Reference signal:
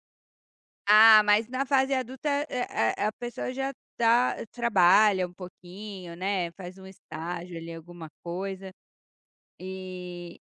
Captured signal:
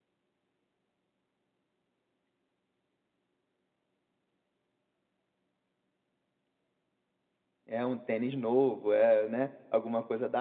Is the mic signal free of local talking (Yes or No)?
No